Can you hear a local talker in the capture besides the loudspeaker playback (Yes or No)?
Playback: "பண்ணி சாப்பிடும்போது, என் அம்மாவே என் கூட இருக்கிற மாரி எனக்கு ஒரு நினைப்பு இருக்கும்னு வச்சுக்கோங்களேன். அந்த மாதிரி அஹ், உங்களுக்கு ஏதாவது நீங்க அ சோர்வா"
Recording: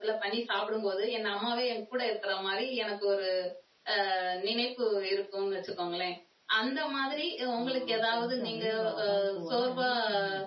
Yes